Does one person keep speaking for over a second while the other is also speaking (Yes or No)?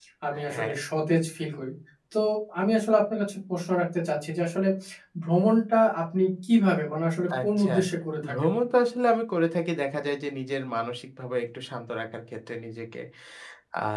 No